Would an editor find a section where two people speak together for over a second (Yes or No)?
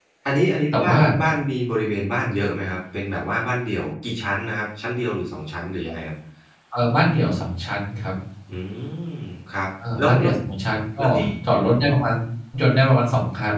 No